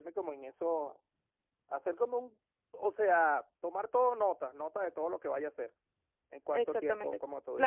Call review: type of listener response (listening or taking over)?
taking over